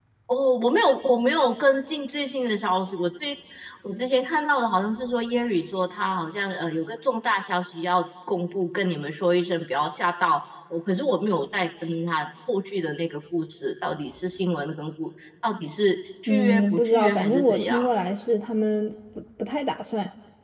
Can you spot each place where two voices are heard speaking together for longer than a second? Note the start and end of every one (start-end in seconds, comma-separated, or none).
16.3-17.8